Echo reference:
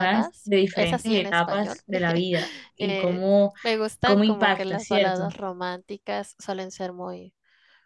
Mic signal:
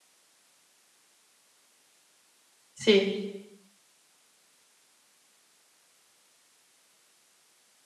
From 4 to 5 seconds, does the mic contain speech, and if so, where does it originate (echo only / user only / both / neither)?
neither